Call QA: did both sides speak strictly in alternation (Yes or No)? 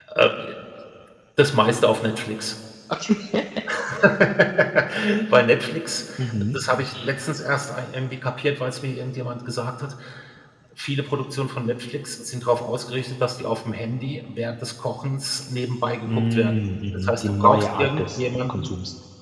No